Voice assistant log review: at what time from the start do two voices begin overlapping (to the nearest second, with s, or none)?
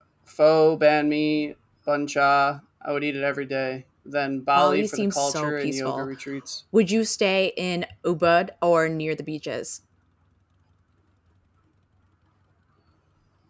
5 s